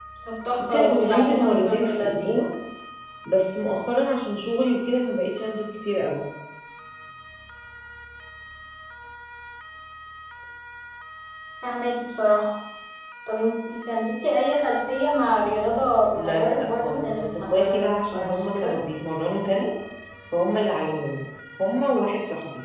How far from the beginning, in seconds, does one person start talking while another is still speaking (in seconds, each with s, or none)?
0.6 s